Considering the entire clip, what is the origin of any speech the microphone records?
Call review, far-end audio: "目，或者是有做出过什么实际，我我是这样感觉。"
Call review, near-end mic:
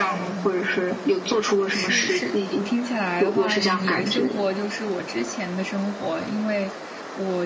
both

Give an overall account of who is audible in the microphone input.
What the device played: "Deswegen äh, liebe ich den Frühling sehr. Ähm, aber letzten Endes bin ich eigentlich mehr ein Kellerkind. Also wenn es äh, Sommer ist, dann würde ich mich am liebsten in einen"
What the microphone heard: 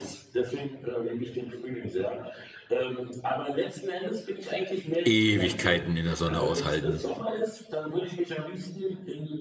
both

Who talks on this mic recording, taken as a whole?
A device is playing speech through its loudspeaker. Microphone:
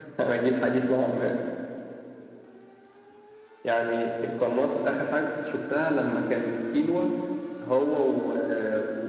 echo only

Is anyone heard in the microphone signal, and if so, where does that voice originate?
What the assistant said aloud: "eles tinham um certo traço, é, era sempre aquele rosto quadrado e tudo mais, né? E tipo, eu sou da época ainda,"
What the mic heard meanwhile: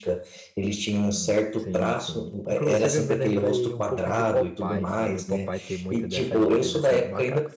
both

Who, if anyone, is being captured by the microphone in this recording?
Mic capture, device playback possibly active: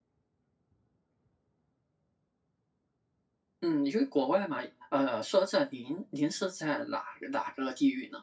user only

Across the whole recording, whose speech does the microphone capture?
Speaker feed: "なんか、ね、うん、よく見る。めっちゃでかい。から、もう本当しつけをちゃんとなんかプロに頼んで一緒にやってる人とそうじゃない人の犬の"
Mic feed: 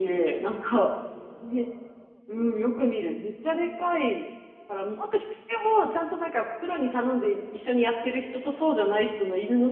echo only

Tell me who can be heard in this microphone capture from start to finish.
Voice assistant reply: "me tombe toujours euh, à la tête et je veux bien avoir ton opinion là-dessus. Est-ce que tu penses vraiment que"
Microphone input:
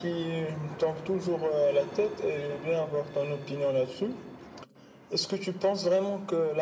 echo only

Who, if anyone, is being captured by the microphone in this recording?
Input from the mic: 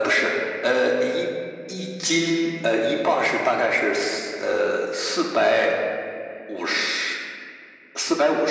echo only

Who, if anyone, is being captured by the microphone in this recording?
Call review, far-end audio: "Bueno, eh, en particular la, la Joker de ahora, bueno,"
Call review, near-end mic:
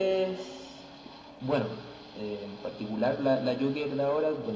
echo only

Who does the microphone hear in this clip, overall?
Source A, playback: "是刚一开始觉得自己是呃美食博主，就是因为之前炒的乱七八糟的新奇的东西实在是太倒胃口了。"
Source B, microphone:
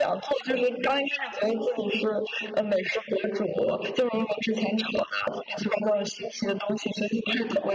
echo only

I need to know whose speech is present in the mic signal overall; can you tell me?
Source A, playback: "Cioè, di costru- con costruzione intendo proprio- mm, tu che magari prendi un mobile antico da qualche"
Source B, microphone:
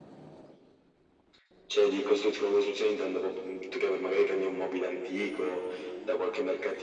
echo only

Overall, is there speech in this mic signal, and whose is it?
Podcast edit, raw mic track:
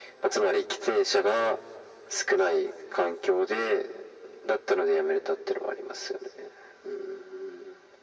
echo only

